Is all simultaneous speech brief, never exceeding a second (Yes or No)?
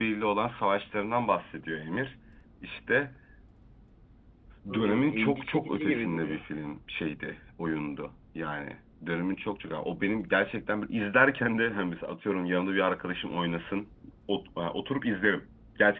No